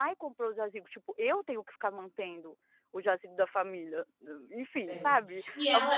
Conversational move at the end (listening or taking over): taking over